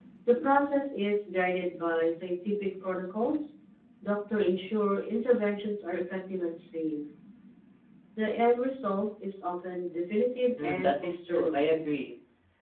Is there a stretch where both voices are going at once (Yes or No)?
Yes